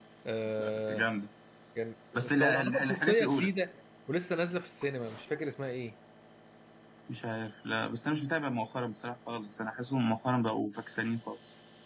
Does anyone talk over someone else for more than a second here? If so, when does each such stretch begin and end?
2.2-3.5

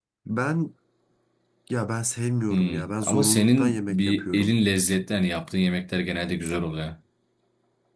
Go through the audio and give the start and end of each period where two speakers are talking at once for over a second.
2.5-4.5

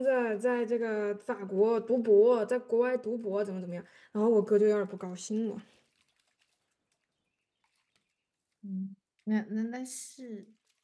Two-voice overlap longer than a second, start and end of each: none

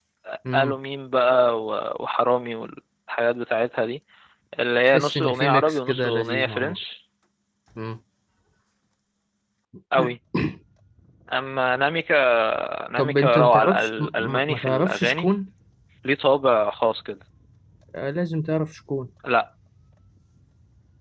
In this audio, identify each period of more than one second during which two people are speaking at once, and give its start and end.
4.9-6.8, 13.0-15.3

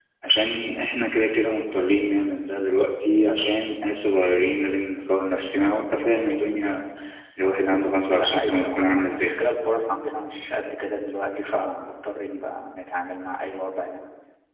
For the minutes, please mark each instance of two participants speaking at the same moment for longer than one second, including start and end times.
8.1-9.4

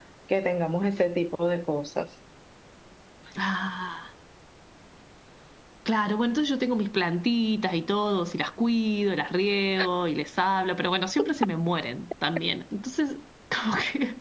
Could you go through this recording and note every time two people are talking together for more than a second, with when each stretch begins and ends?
none

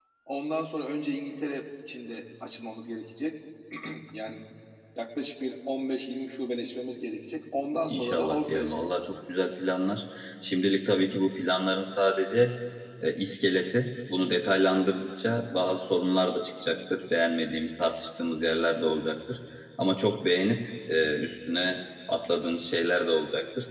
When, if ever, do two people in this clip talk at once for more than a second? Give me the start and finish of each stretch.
7.9-9.1

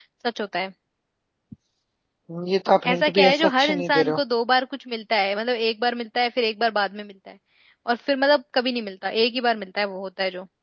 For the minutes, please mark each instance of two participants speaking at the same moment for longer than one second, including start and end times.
2.9-4.2

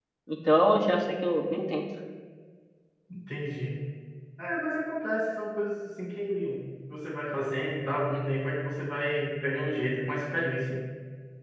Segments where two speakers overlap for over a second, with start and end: none

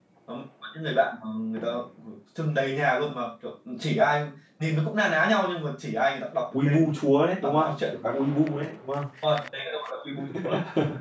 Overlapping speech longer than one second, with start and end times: none

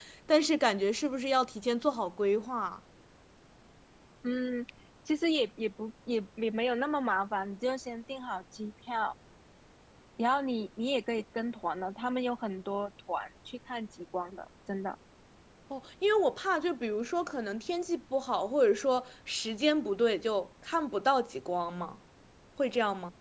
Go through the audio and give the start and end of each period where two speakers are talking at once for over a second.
none

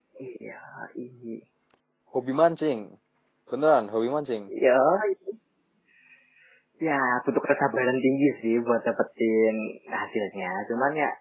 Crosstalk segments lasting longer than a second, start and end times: none

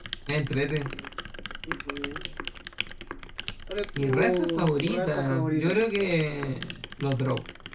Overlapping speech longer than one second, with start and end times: 4.0-6.1

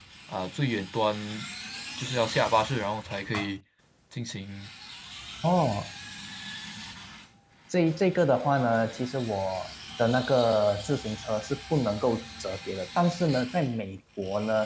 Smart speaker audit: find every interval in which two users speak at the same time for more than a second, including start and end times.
none

